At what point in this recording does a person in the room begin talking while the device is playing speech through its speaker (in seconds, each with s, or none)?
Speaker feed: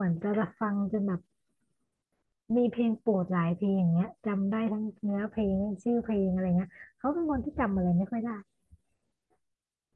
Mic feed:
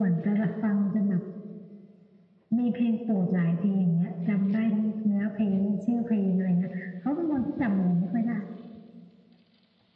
none